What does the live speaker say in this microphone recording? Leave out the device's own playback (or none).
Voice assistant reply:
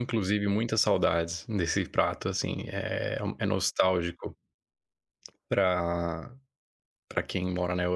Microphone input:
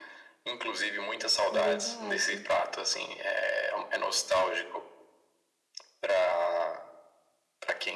É verdade.